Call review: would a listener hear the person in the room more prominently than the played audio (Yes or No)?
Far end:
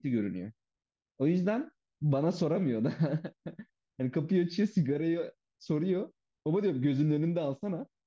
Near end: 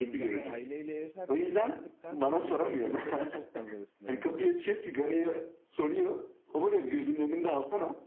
No